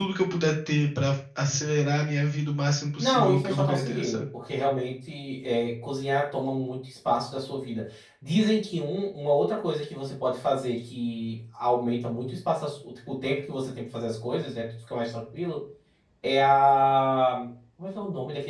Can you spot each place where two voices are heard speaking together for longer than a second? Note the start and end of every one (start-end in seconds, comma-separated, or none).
3.0-4.2